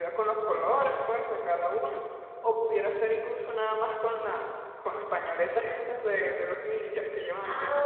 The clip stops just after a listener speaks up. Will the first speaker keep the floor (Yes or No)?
No